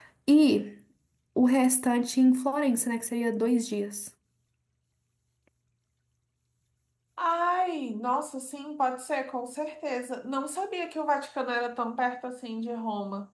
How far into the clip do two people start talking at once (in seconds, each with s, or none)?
none